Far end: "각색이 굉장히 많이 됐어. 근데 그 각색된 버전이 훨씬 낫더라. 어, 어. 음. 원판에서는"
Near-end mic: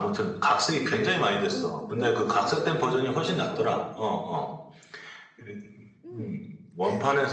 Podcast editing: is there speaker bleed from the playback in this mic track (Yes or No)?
Yes